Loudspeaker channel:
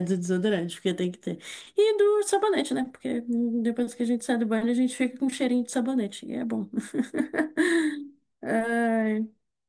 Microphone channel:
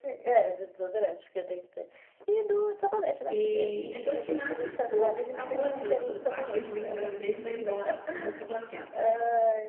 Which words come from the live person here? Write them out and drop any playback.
E depois que nasce, pronto, acabou essa, essa parte ruim da gravidez e vai embora, junto com a placenta.

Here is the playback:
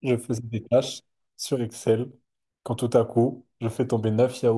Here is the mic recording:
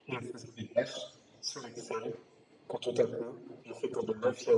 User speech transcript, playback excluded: none

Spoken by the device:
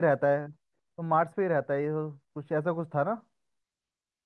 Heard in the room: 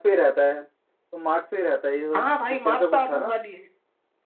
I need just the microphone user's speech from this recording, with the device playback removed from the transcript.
हाँ भाई मार्स पे आलू उगा लिए

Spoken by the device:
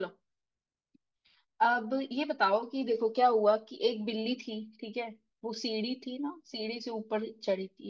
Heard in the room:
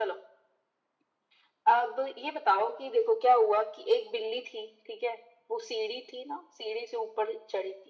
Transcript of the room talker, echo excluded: none

